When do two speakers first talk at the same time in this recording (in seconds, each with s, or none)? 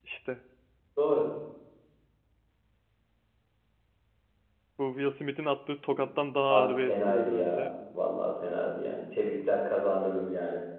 6.5 s